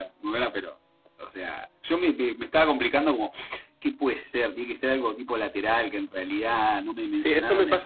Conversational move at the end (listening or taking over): taking over